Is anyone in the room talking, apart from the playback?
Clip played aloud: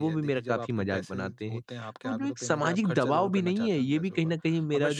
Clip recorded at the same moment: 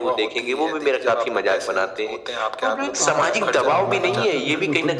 Yes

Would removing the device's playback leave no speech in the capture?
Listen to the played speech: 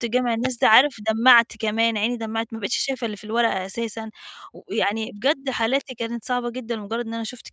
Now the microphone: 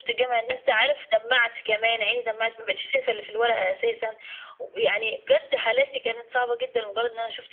Yes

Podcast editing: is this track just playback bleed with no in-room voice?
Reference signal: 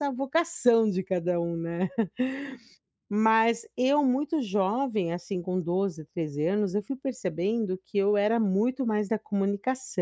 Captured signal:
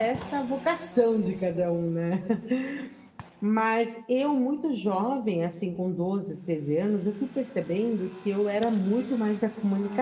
Yes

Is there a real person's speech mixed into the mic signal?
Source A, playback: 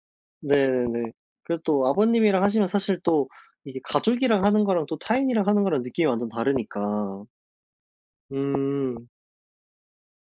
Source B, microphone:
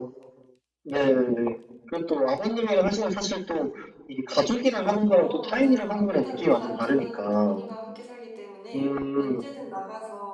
Yes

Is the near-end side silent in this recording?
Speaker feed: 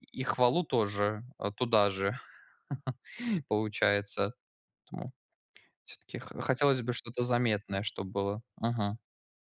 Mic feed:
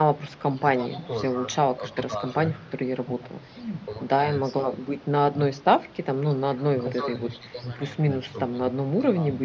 No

